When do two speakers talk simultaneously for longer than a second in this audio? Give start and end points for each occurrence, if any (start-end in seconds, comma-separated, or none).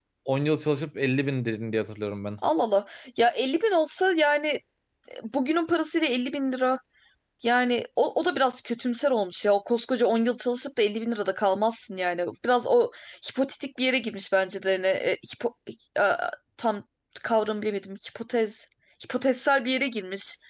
none